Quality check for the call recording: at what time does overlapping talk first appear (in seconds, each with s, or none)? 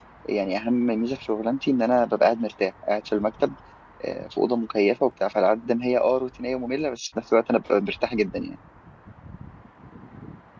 none